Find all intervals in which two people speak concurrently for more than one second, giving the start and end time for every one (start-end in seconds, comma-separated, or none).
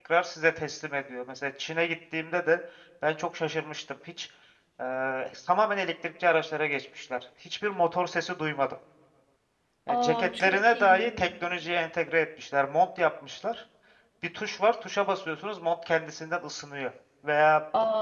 9.9-11.1